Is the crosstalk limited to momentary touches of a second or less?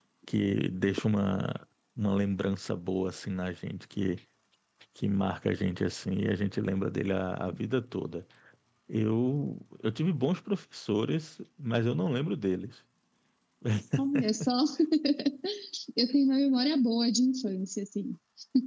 Yes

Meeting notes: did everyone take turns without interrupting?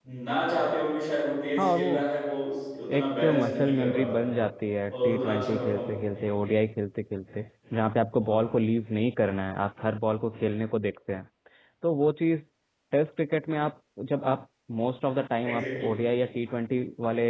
No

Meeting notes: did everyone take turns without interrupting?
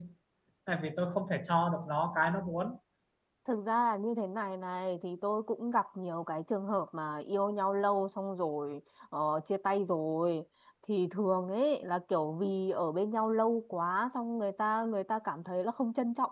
Yes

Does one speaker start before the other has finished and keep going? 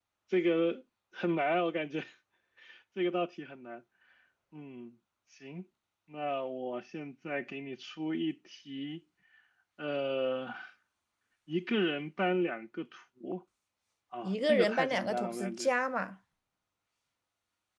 Yes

